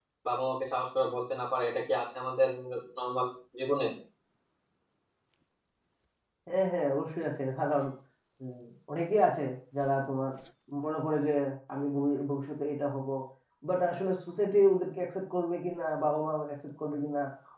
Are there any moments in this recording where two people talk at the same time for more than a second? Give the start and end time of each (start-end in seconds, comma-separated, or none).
none